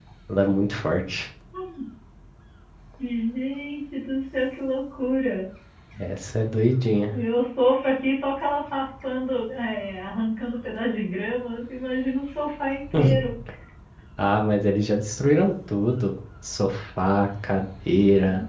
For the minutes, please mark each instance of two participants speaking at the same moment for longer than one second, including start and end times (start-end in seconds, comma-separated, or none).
none